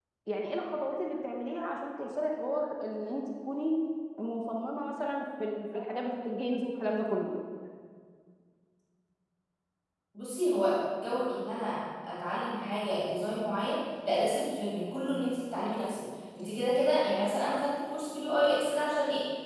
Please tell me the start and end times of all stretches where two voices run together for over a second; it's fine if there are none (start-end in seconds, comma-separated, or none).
none